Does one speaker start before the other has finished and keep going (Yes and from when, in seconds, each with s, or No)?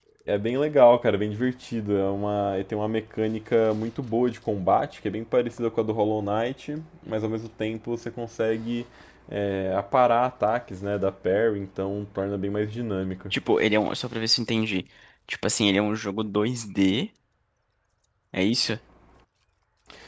No